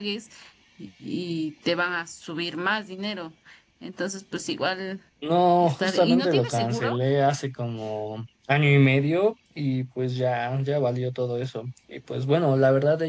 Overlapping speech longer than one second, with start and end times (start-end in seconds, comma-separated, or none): 5.6-7.0